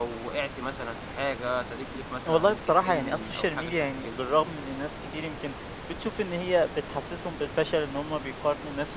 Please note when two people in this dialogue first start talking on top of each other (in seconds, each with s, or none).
2.3 s